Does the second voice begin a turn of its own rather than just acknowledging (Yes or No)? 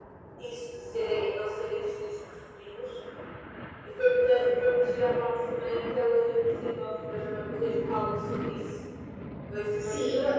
Yes